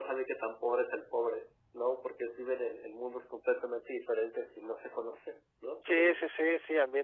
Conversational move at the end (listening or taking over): taking over